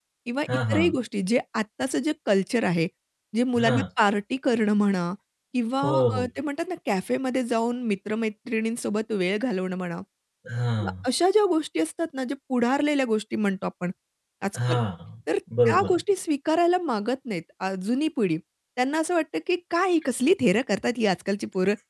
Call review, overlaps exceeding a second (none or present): none